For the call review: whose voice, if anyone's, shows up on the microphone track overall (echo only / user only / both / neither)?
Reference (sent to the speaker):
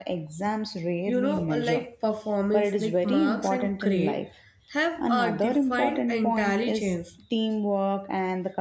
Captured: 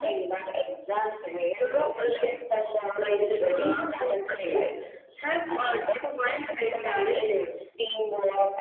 echo only